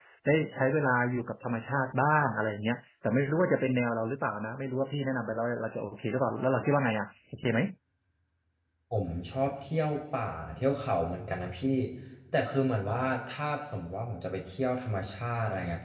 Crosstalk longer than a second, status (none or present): none